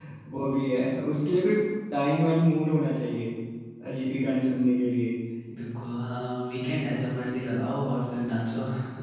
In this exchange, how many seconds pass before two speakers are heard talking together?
none

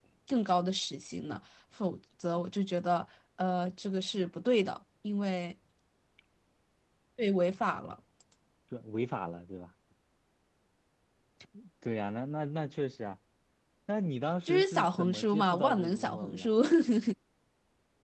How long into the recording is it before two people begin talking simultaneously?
14.4 s

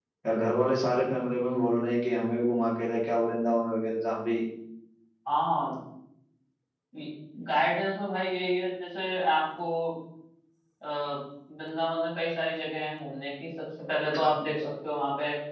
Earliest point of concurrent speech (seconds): none

